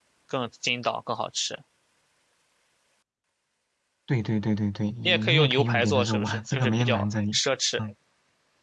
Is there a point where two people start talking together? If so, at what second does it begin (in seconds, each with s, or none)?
5.0 s